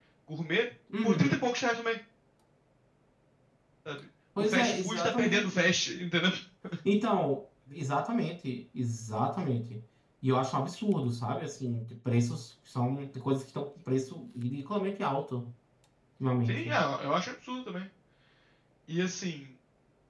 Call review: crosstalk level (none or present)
present